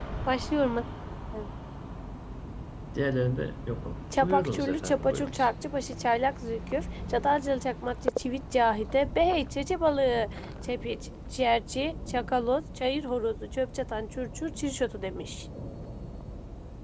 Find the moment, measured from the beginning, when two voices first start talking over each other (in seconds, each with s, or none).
4.1 s